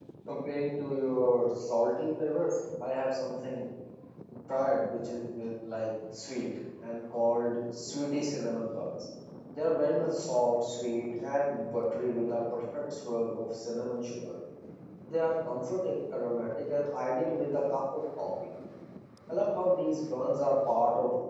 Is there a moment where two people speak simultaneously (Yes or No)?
No